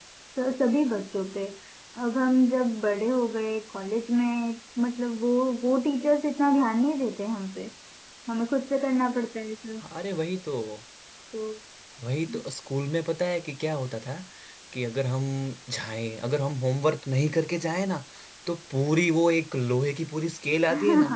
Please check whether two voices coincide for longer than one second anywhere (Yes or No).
No